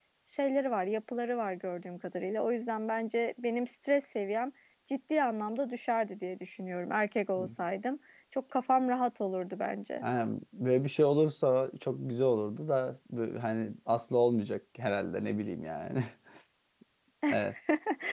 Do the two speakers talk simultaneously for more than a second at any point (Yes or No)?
No